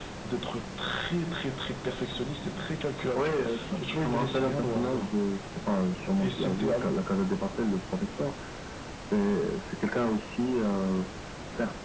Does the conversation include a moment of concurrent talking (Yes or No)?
Yes